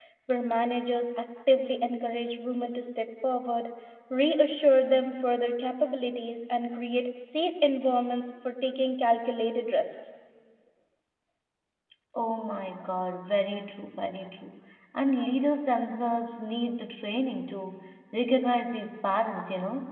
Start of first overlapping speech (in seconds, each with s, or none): none